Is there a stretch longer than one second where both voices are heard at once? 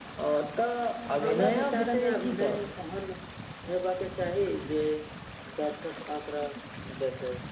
Yes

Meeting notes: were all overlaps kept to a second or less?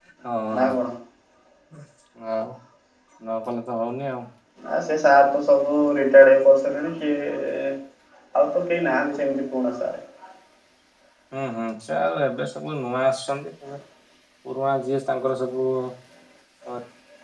Yes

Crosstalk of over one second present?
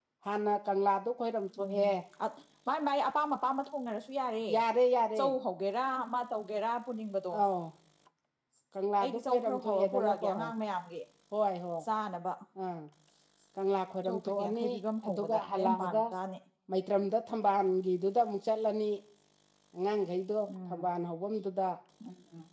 Yes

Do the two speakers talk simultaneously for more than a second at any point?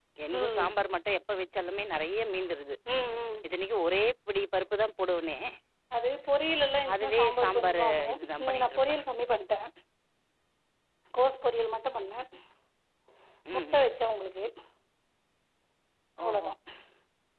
Yes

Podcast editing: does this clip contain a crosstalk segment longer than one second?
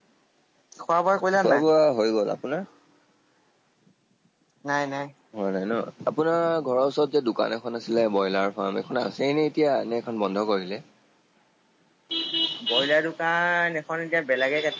No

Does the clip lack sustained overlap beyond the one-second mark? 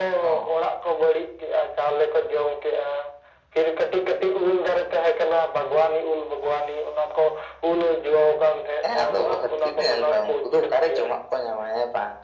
No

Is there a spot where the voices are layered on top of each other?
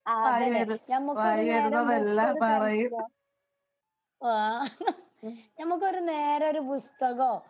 Yes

